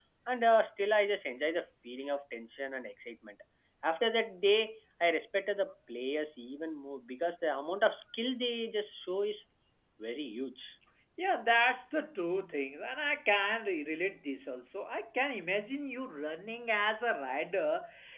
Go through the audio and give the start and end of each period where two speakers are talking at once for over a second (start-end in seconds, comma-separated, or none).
none